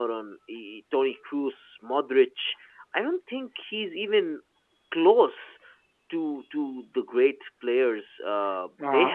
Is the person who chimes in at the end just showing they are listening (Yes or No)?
No